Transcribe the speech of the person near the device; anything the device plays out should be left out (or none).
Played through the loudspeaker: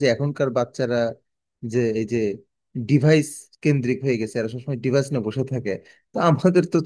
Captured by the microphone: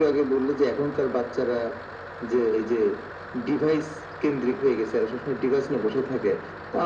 none